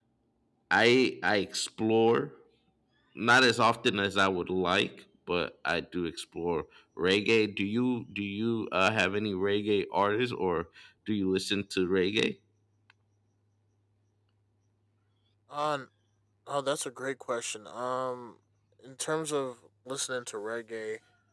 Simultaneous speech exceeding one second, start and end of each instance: none

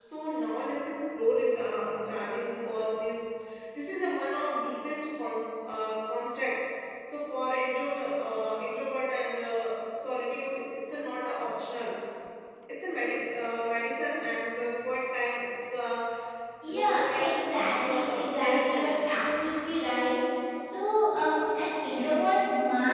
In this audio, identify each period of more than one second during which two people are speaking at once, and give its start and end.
16.7-18.9

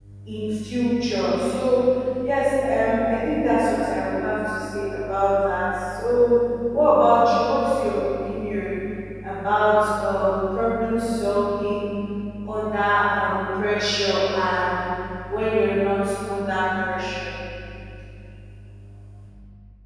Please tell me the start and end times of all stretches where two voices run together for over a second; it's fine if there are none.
none

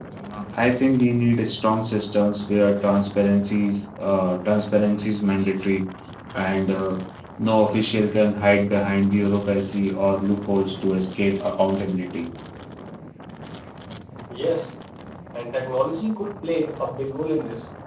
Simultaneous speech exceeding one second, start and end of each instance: none

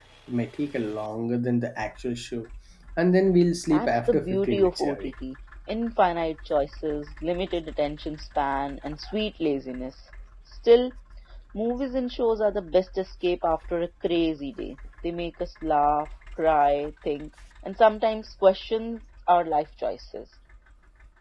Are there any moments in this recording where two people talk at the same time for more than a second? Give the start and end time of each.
3.7-5.0

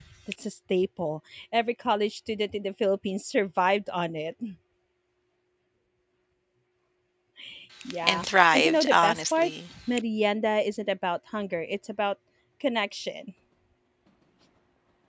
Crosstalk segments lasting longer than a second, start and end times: 8.0-9.5

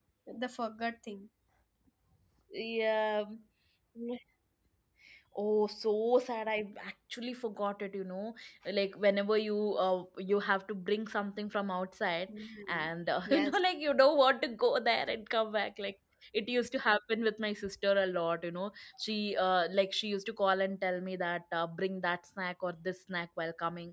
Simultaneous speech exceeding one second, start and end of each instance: none

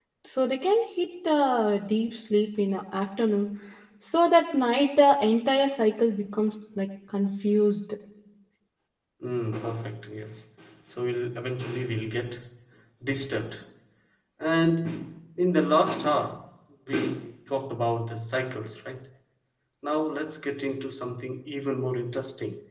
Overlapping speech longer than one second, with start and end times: none

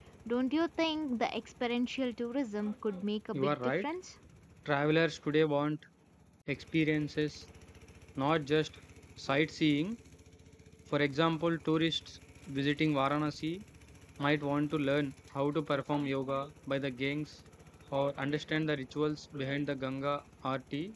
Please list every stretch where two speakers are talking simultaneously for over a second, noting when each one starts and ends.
none

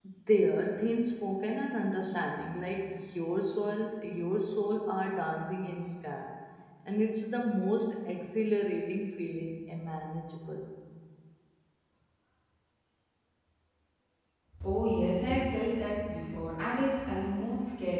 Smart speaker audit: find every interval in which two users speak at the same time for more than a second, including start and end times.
none

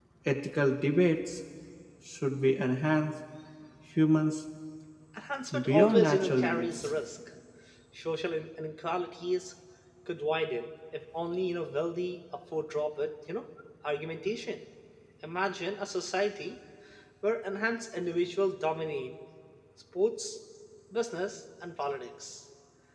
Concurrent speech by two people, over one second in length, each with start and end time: 5.5-6.9

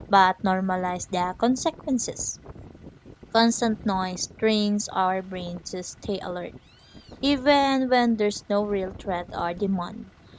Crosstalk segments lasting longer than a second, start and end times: none

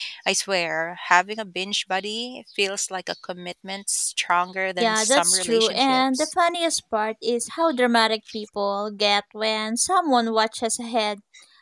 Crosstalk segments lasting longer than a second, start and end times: 4.8-6.3

